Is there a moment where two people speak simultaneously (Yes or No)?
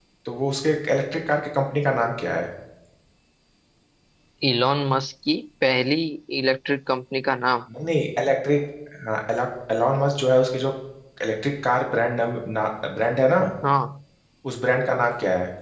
No